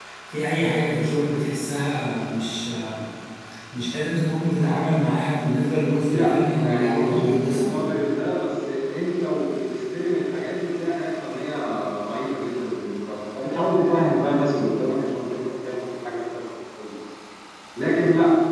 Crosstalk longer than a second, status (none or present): present